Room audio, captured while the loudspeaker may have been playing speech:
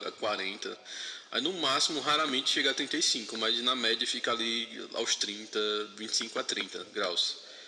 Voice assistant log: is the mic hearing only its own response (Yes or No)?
Yes